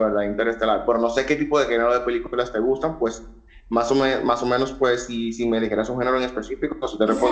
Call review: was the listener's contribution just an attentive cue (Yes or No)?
No